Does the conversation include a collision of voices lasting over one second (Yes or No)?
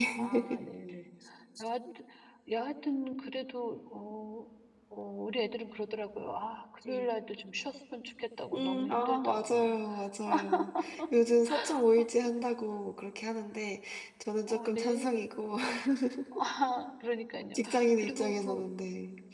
Yes